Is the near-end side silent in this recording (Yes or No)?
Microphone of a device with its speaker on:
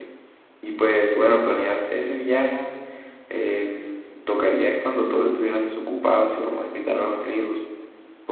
No